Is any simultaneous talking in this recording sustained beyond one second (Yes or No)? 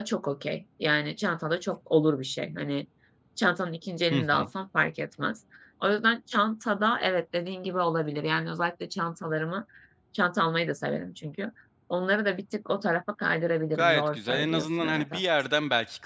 Yes